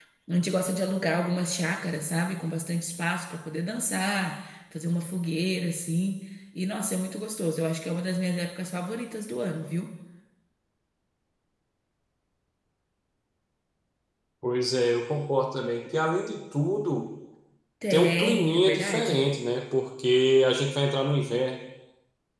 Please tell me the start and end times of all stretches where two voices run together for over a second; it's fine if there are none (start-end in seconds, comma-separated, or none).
17.9-19.2